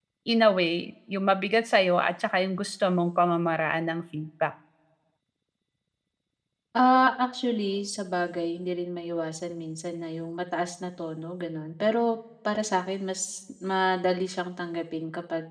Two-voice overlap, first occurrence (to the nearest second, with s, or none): none